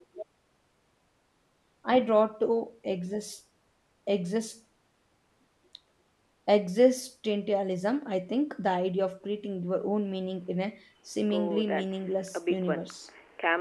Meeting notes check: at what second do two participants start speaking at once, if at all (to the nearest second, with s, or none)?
11 s